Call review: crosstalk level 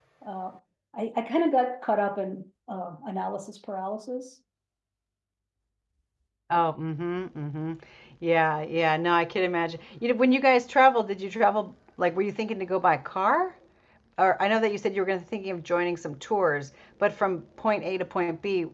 none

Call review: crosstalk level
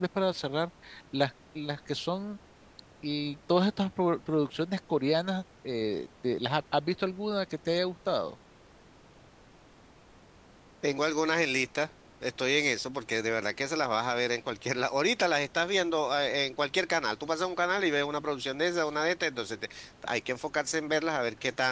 none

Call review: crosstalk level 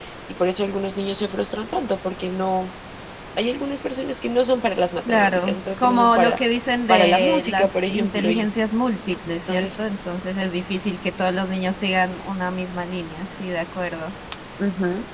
present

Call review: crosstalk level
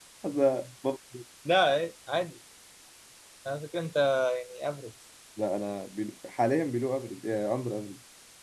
none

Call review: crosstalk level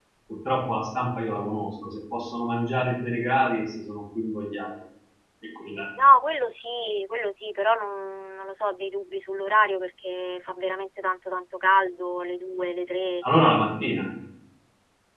none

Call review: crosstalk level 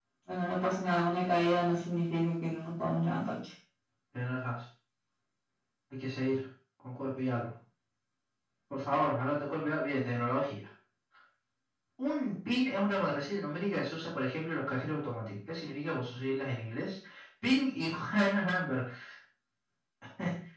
none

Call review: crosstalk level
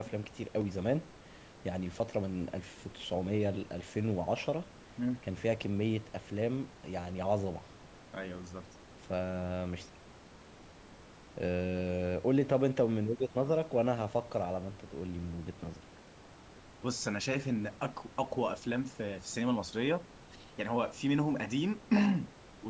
none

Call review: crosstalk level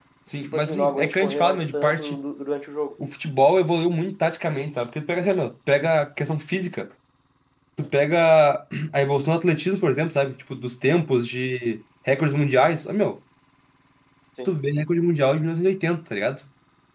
present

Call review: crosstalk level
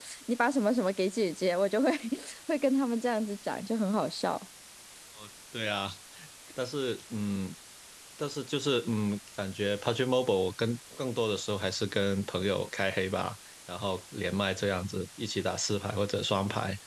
none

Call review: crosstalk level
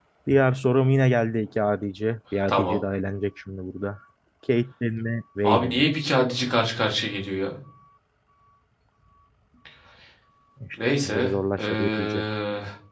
present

